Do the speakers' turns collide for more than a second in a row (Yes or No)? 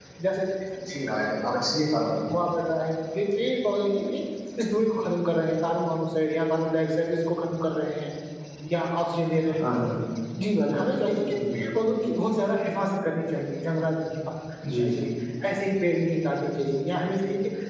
No